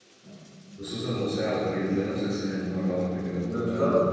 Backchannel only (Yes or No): No